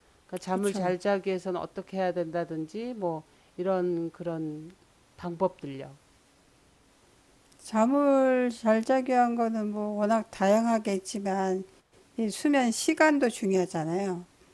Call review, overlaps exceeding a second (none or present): none